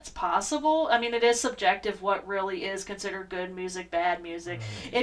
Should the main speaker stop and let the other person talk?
No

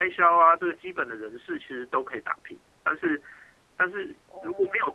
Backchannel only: Yes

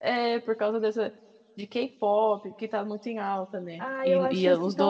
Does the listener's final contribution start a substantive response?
Yes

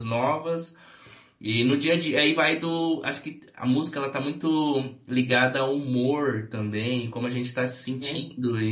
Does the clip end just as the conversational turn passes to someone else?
No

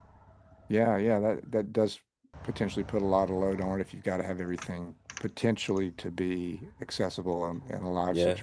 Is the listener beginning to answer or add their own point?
Yes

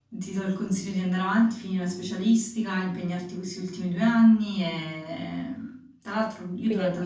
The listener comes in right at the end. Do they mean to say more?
No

